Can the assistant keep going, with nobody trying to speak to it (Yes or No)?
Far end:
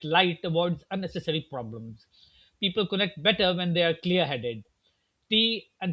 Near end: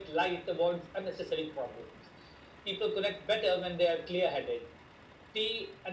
Yes